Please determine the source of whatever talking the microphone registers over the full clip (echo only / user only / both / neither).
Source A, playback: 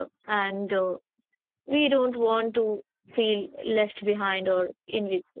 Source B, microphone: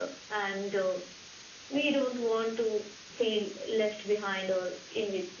echo only